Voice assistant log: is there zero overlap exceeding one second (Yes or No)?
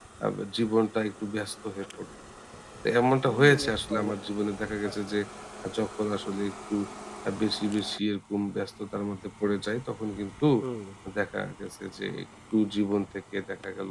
No